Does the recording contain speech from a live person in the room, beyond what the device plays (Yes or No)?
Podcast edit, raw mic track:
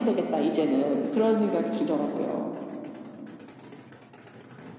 No